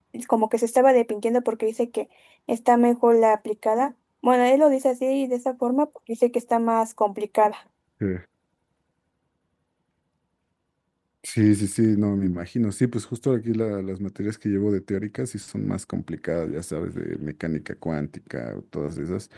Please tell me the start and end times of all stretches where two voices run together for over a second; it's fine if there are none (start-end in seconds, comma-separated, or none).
none